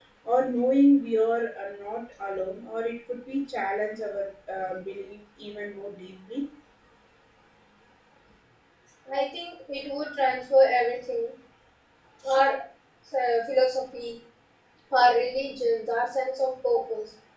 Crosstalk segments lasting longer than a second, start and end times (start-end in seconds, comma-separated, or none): none